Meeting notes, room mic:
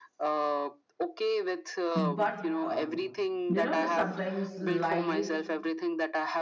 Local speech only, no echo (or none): but um, you know sometimes life